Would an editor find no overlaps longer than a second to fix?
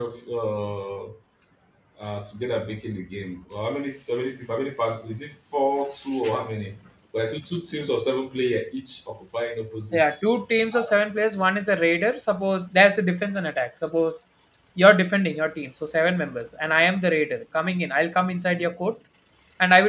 Yes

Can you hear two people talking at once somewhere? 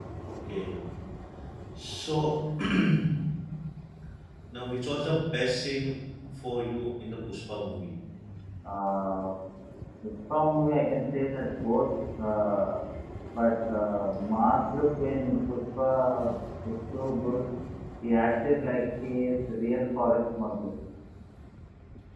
No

